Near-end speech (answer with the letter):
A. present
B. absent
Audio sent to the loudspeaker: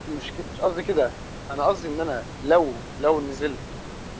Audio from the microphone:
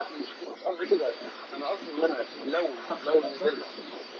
A